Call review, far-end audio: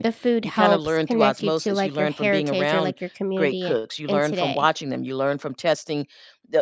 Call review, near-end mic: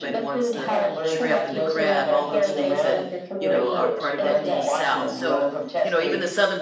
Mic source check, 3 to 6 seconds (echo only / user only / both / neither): both